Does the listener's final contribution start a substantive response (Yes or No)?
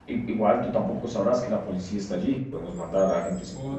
Yes